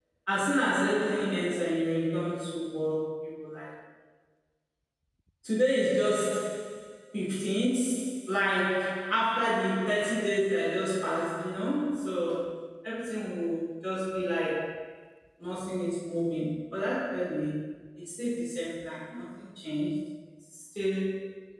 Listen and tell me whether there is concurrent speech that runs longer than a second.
No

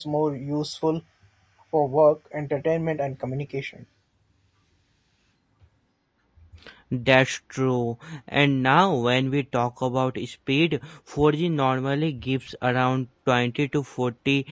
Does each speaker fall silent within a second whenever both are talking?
Yes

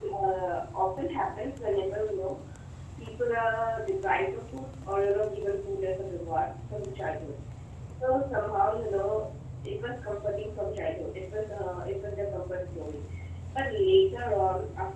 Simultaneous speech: No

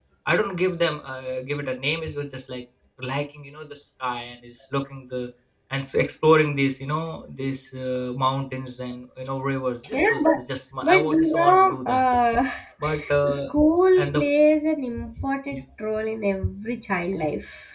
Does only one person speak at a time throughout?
No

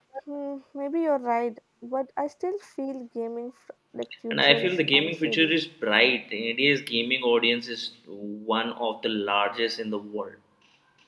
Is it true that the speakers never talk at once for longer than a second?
No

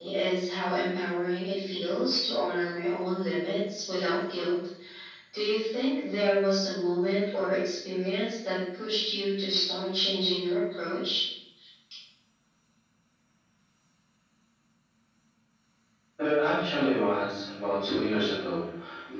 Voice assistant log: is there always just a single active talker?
Yes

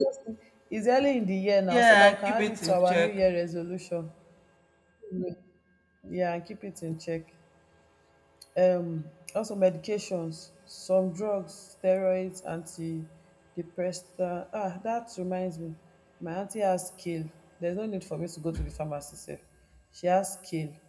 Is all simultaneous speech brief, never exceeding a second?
No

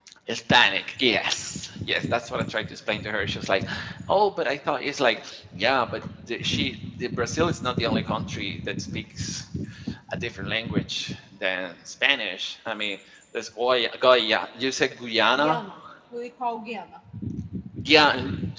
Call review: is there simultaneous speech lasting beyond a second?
No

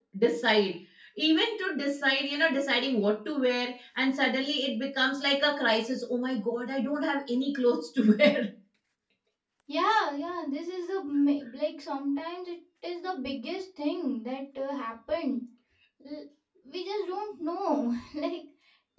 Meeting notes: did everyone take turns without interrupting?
Yes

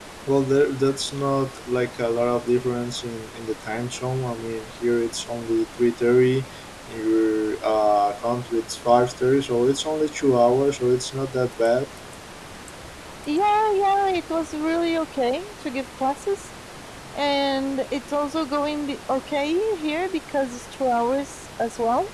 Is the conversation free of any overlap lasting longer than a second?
Yes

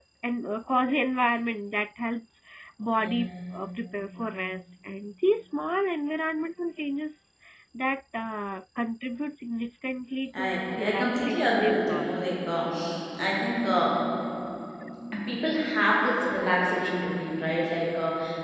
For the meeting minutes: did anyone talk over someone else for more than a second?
Yes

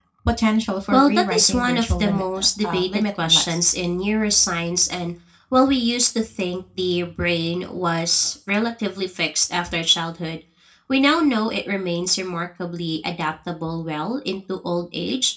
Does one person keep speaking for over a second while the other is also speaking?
Yes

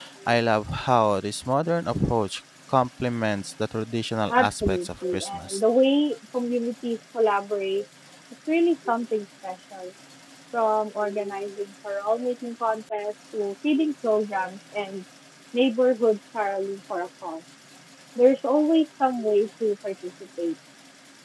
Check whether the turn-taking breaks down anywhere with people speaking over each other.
Yes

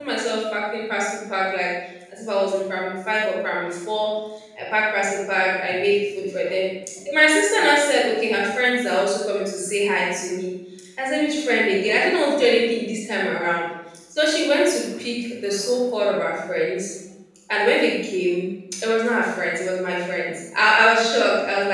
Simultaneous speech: No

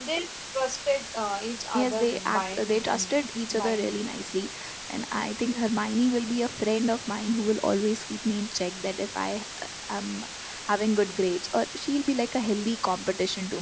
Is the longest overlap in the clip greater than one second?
Yes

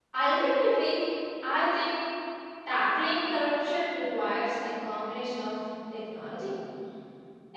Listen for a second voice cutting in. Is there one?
No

